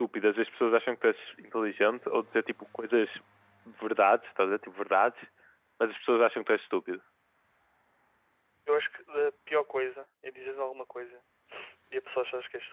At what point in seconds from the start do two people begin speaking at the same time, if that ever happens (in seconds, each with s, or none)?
none